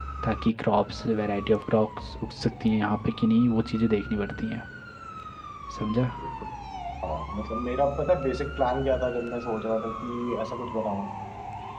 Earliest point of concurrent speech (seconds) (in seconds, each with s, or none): none